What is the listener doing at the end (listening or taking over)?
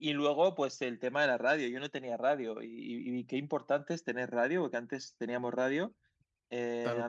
listening